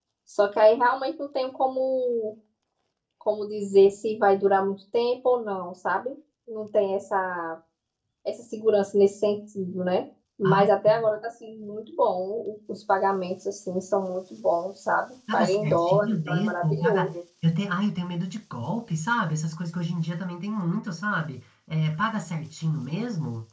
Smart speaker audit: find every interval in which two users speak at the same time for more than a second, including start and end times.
15.3-17.1

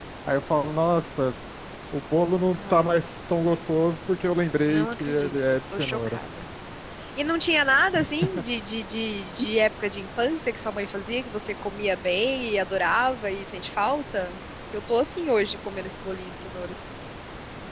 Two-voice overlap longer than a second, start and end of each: 4.7-6.2

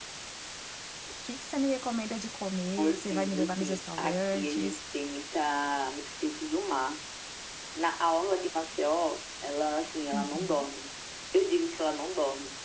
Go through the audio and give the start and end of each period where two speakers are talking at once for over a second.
2.8-4.8

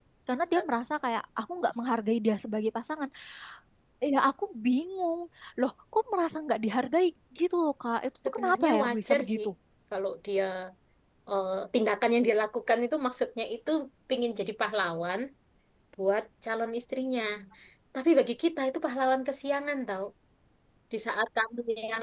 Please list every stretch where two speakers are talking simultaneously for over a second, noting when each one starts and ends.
8.2-9.5

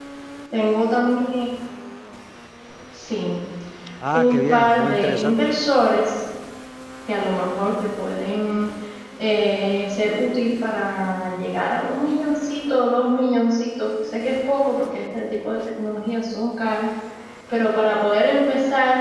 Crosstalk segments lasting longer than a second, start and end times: 4.1-5.3

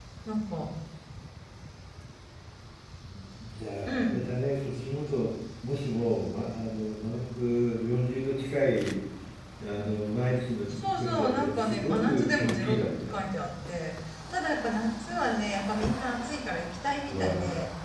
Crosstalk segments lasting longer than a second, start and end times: 10.7-13.1

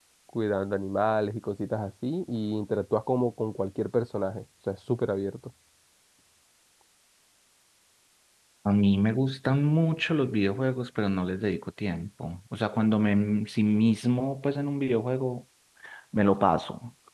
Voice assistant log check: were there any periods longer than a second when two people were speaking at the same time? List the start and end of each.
none

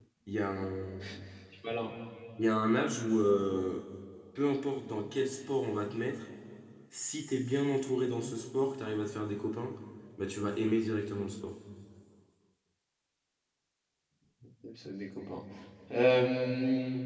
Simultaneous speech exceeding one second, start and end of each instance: none

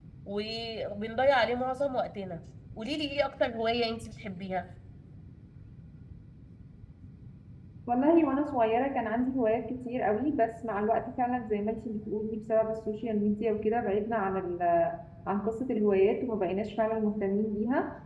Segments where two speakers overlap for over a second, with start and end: none

